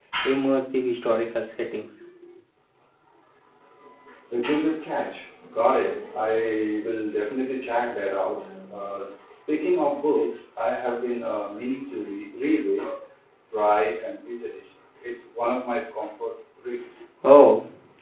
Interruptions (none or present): none